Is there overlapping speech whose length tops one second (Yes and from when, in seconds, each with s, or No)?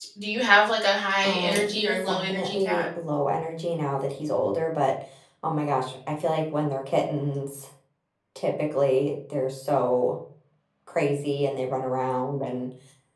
Yes, from 1.2 s